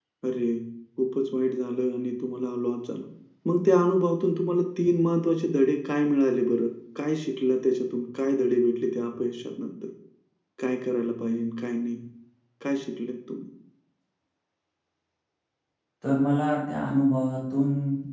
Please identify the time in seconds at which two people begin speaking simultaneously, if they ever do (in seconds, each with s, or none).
none